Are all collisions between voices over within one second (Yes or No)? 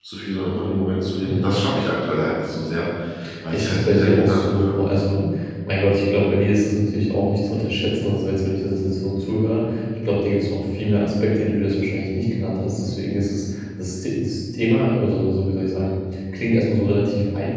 No